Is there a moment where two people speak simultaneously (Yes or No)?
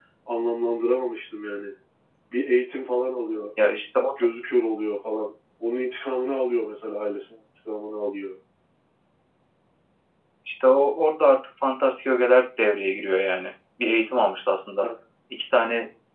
No